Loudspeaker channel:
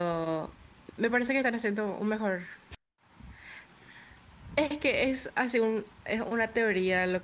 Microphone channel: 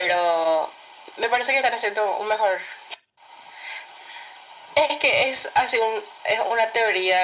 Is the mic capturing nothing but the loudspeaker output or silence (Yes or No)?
Yes